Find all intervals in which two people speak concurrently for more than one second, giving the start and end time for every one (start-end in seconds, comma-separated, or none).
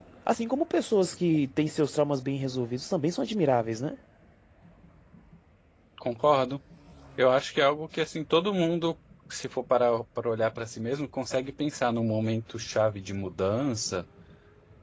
none